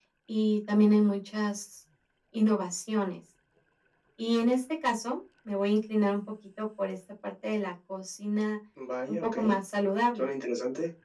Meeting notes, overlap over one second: none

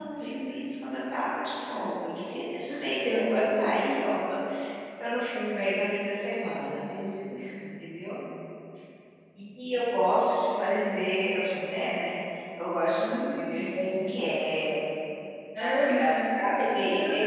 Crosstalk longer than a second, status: present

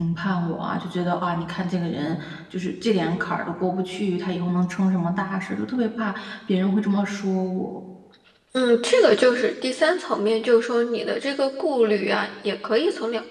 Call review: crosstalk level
none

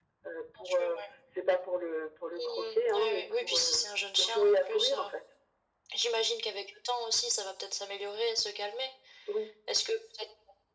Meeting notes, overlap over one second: present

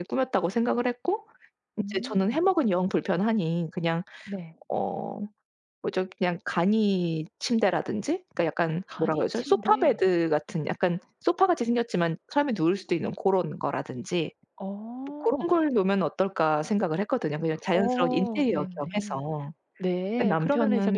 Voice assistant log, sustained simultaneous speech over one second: present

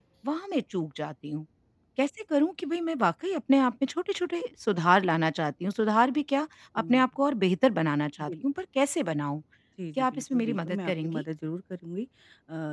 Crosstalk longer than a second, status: present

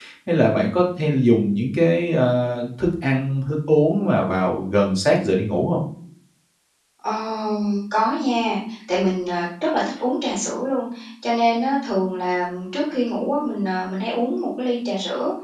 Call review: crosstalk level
none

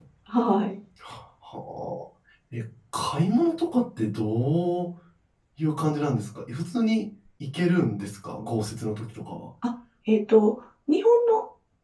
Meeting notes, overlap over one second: none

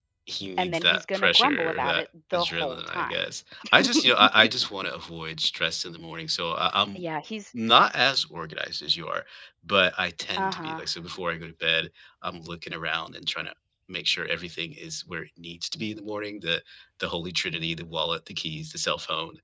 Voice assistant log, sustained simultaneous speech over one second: present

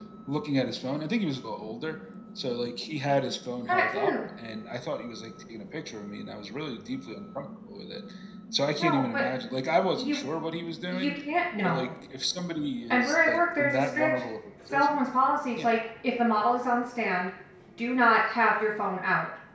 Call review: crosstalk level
present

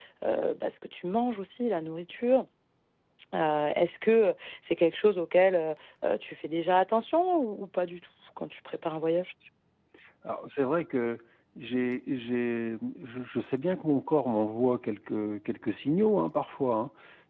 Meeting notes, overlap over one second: none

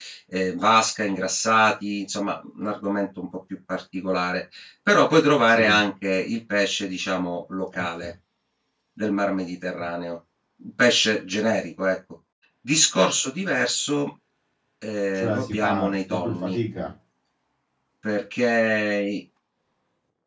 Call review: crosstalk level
present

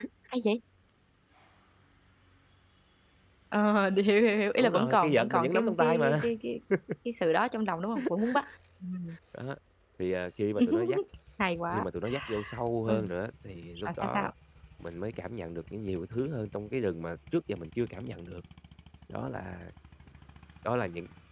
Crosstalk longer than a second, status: present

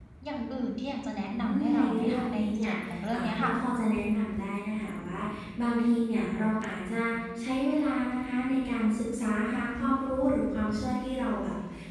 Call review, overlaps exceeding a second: present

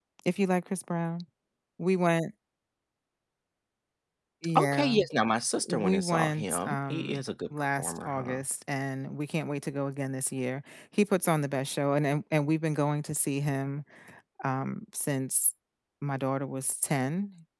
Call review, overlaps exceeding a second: present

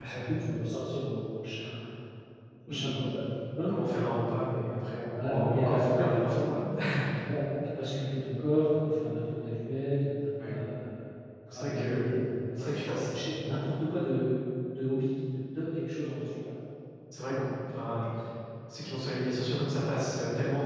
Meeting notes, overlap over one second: present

